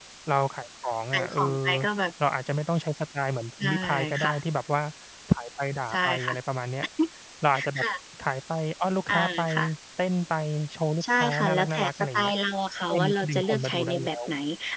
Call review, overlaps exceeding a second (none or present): present